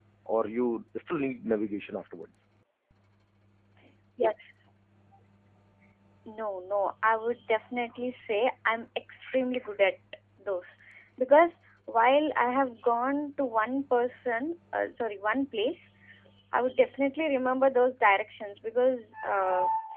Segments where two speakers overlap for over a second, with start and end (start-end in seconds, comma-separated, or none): none